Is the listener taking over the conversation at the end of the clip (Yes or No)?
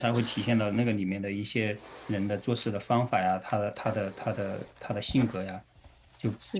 Yes